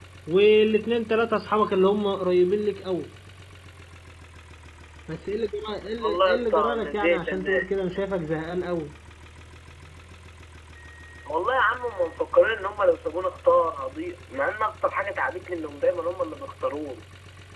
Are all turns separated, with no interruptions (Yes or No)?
No